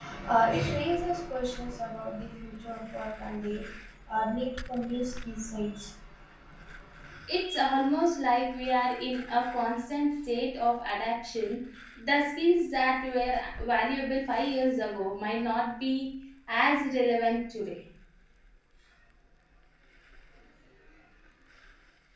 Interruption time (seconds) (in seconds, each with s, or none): none